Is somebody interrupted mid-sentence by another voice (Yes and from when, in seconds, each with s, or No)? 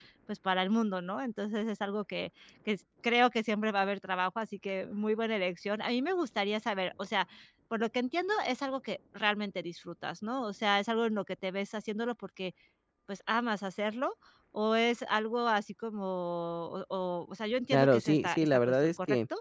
Yes, from 17.7 s